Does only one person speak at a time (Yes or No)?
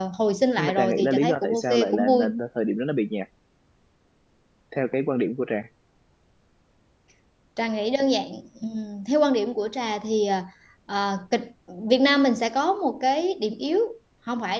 No